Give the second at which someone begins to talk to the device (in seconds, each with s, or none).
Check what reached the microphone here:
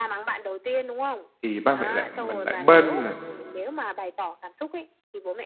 1.4 s